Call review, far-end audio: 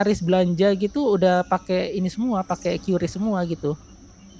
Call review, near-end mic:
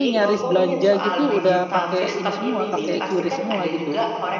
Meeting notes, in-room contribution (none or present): present